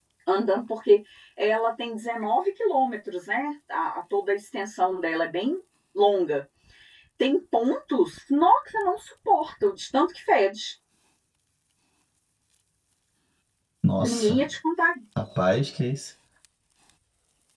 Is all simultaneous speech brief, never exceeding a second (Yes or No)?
Yes